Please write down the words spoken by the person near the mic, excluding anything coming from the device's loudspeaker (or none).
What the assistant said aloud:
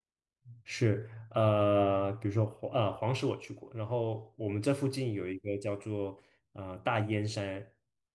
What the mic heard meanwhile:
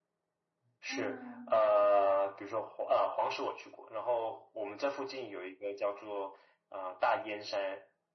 嗯